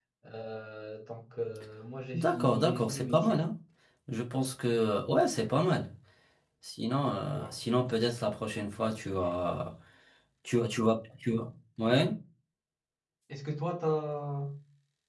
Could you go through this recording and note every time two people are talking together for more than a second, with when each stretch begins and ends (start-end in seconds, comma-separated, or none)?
2.1-3.5